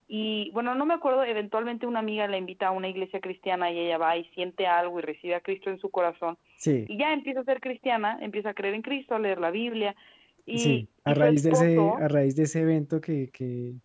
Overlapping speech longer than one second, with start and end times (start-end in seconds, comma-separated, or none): 10.5-12.0